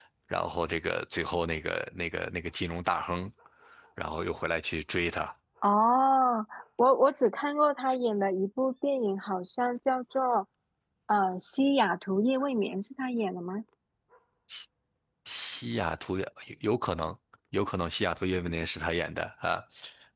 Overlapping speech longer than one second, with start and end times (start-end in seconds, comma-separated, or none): none